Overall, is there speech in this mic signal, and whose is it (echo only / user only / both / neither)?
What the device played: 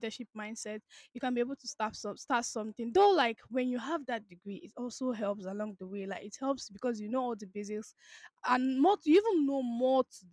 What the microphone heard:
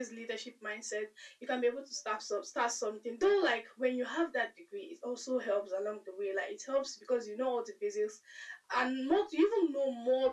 echo only